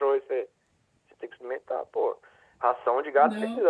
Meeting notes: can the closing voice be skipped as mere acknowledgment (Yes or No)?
Yes